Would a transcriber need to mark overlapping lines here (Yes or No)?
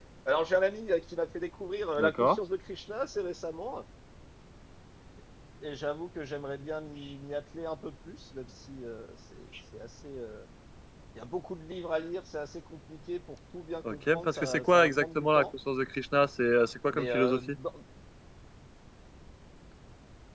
Yes